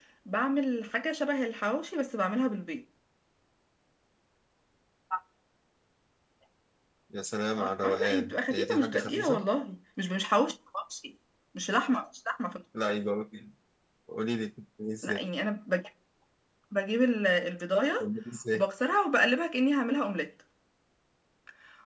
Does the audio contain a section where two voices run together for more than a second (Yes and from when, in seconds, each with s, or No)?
Yes, from 7.6 s